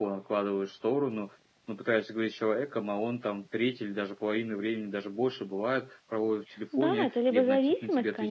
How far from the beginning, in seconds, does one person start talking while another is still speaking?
6.7 s

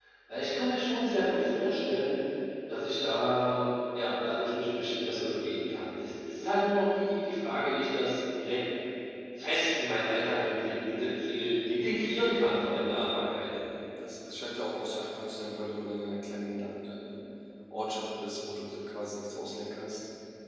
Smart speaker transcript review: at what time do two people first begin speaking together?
none

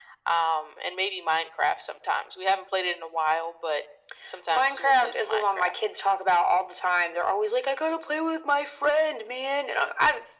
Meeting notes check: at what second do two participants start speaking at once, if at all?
4.5 s

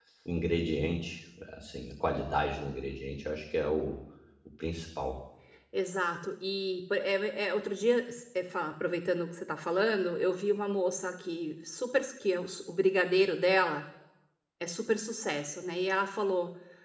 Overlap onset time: none

